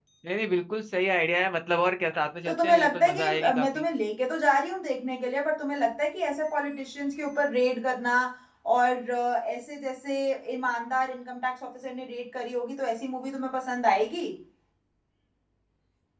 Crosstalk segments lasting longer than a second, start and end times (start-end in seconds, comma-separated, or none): 2.4-3.8